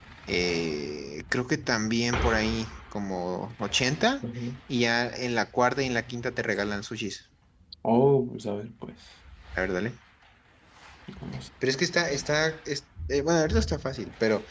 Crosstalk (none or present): none